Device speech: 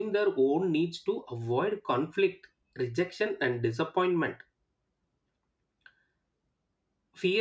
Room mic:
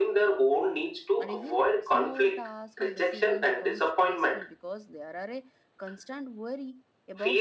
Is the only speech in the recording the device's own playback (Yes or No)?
No